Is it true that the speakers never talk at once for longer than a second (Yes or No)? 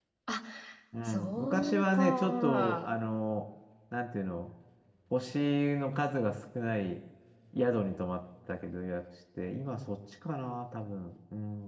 No